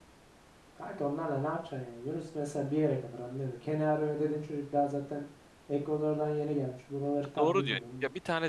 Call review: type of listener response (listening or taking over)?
taking over